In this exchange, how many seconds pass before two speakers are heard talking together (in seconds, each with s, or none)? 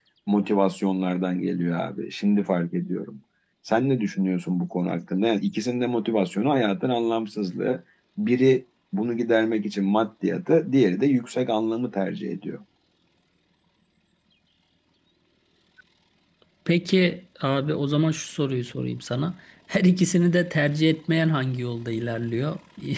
none